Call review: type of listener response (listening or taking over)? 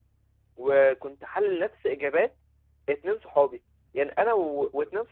listening